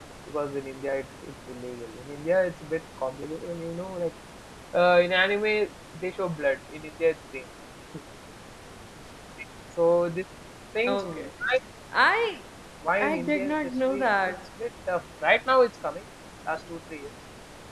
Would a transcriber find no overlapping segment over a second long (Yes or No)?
No